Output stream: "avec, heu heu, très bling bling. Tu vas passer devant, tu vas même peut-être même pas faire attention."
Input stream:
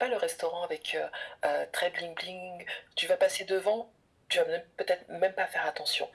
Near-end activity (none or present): none